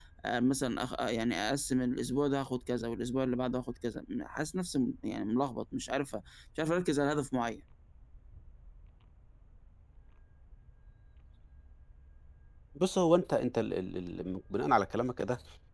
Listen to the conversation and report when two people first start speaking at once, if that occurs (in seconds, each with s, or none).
none